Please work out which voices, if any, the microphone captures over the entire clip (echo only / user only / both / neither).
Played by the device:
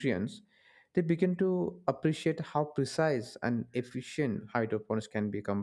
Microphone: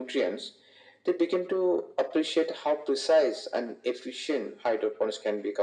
echo only